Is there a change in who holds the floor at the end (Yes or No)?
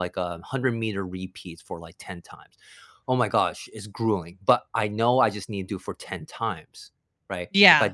No